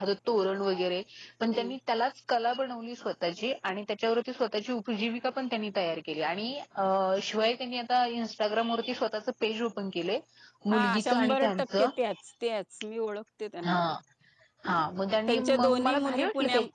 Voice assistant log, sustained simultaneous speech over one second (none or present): present